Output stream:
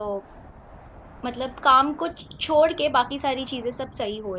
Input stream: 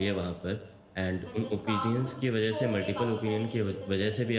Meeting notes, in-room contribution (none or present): present